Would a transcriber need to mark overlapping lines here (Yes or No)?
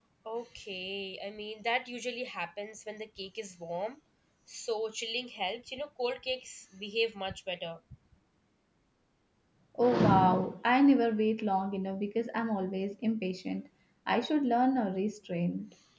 No